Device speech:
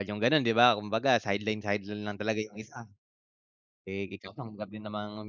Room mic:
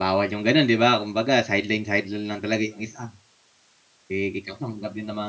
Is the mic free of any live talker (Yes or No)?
Yes